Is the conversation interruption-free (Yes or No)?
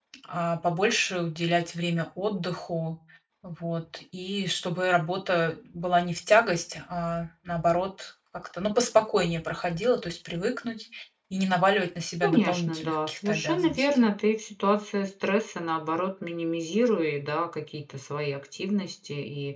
No